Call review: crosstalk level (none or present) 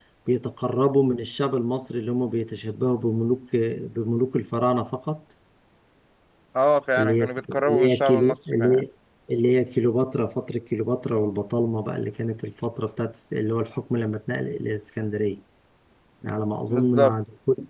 present